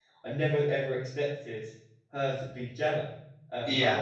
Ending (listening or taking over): listening